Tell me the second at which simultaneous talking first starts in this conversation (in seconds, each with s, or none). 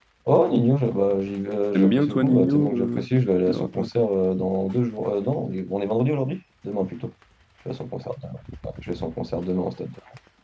1.7 s